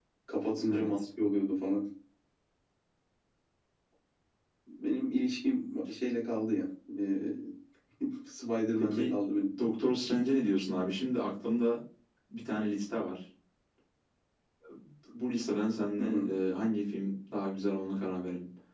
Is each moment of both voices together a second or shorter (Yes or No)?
Yes